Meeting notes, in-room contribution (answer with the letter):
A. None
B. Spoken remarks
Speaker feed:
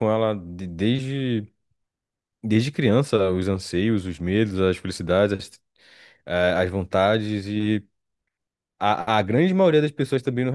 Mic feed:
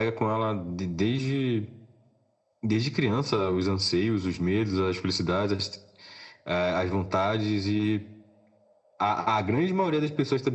A